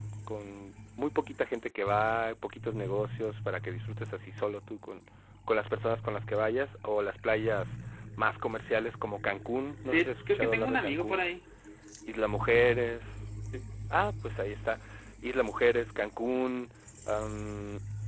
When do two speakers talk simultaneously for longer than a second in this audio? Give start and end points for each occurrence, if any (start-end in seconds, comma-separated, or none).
9.9-11.2